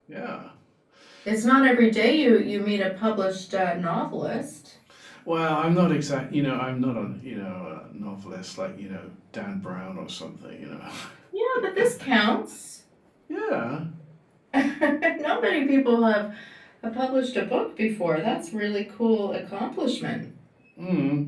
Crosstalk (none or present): none